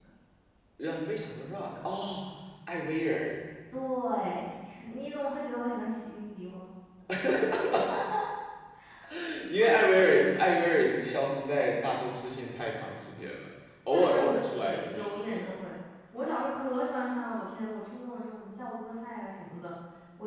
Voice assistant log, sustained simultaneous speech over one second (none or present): present